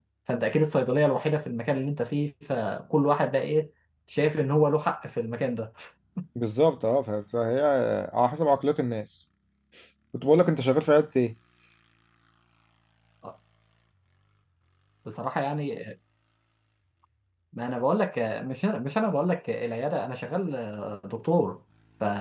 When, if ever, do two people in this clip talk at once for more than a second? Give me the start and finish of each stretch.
none

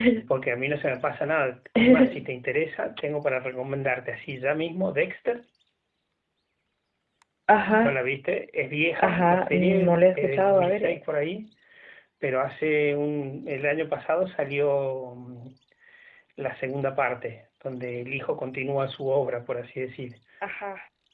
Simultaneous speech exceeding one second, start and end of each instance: 9.0-11.0

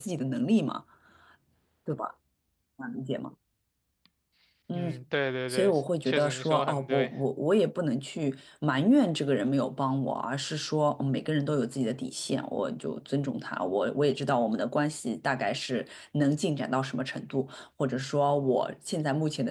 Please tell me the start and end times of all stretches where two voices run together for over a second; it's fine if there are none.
5.5-7.1

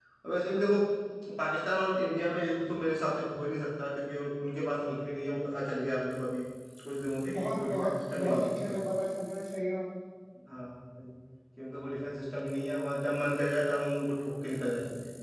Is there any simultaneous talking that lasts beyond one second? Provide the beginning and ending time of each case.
7.3-8.8

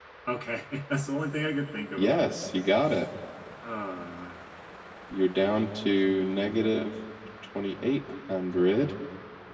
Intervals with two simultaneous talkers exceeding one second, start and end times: none

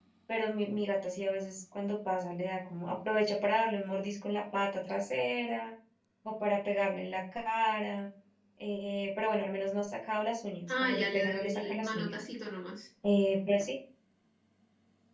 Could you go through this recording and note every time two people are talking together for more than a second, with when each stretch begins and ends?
10.7-12.1

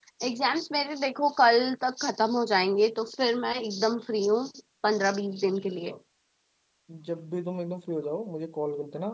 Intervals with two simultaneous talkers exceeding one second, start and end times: none

